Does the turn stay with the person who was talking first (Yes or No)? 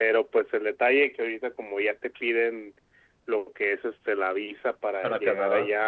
Yes